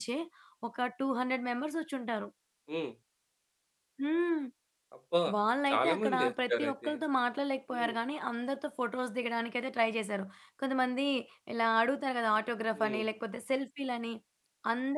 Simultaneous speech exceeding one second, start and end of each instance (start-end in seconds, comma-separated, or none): 5.7-6.9